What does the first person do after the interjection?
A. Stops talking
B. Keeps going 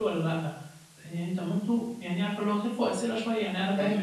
B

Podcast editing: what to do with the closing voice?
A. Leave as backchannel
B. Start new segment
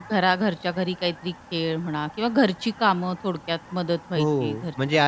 B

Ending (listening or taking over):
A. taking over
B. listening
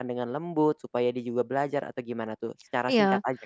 A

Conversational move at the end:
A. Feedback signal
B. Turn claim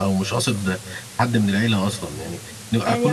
B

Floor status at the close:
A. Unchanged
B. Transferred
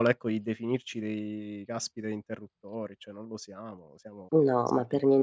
B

